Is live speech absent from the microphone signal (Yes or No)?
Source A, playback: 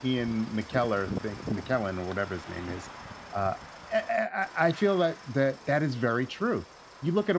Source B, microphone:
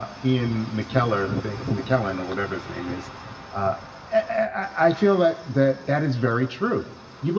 Yes